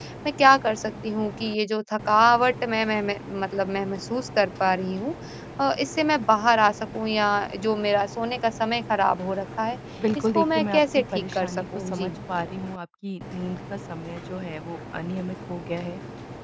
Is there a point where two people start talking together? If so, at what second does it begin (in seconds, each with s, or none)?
10.2 s